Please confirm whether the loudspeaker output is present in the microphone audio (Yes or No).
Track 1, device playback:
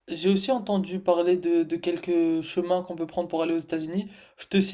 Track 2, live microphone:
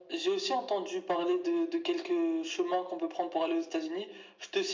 Yes